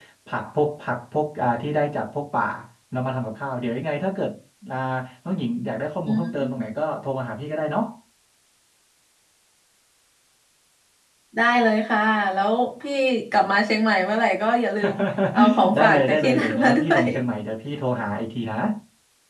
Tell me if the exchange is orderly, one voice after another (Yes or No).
No